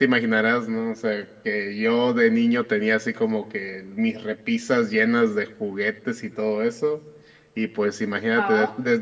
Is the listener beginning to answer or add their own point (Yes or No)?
No